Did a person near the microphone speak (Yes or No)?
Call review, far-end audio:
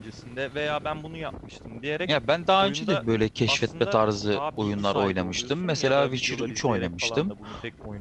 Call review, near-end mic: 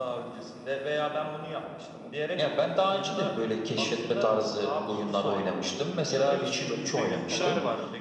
Yes